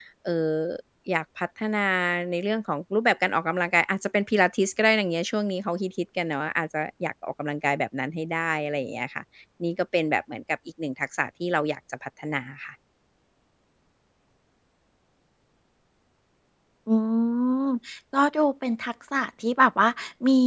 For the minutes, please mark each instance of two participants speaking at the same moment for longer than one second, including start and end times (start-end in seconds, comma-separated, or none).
none